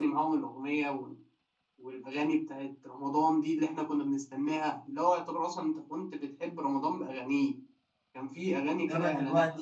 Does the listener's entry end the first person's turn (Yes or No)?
Yes